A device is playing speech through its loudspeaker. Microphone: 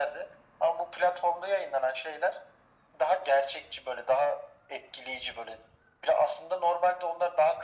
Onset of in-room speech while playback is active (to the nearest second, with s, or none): none